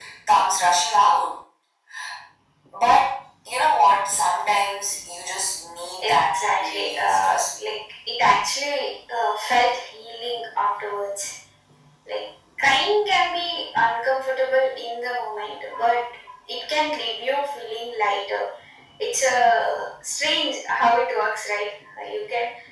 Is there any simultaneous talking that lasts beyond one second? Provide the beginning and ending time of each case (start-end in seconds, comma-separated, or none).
6.0-7.7